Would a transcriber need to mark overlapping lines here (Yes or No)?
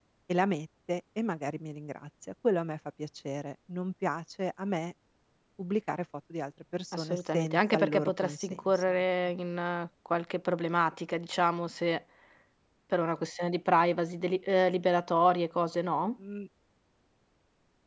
Yes